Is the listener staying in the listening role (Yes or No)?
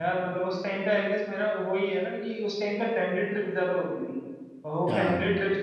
Yes